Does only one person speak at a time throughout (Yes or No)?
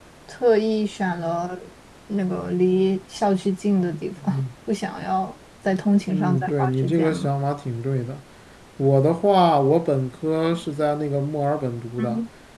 No